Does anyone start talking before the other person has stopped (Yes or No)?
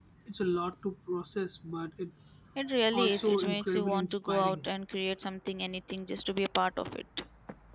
Yes